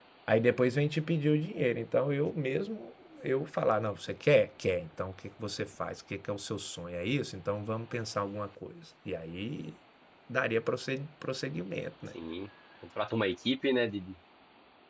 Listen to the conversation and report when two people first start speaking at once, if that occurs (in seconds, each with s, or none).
none